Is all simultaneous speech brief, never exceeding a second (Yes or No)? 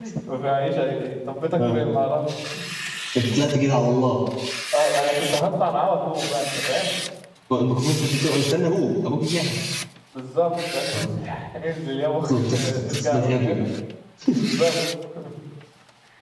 No